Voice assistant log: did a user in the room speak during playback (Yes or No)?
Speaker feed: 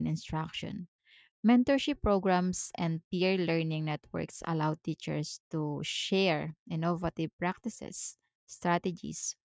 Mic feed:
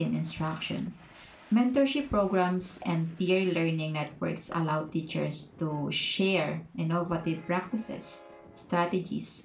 No